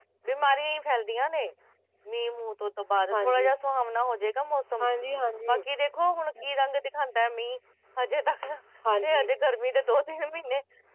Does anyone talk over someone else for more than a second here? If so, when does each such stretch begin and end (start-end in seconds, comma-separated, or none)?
none